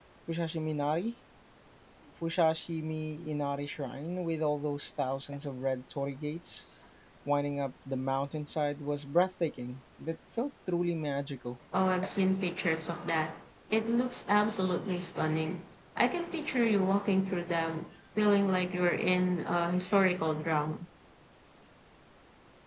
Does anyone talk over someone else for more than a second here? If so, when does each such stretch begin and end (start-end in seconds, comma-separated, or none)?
none